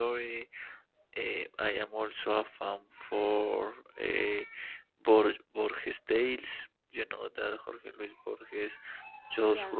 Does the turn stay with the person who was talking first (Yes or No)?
Yes